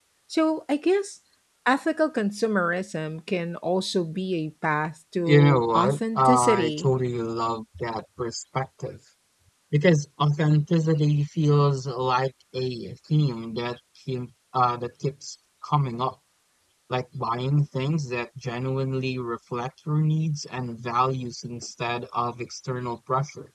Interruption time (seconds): 5.3 s

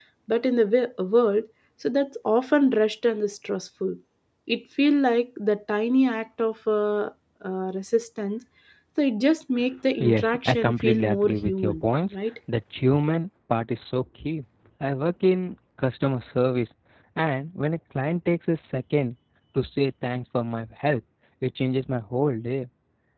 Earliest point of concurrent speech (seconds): 10.0 s

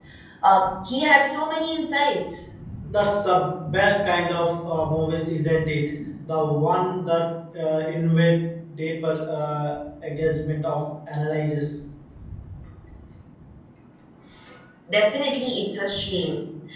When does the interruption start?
none

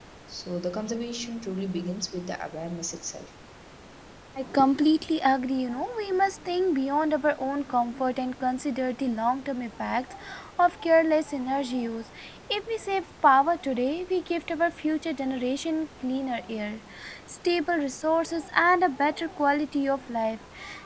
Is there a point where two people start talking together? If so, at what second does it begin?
none

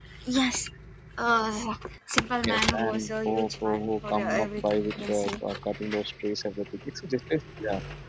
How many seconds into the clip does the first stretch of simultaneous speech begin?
2.4 s

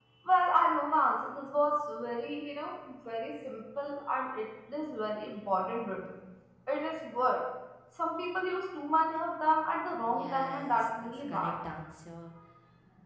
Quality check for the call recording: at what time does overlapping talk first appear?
10.1 s

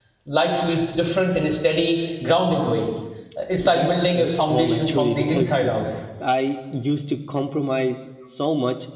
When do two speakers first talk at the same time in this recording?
3.6 s

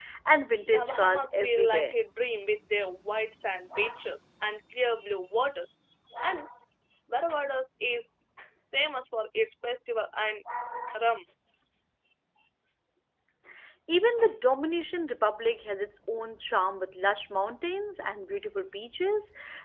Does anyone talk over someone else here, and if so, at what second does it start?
0.7 s

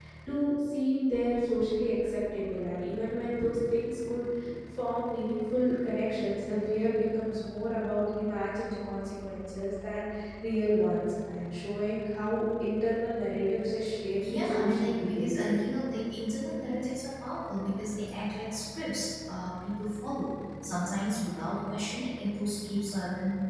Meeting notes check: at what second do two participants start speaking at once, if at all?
14.2 s

